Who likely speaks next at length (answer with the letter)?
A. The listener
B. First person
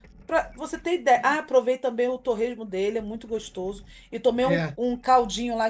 B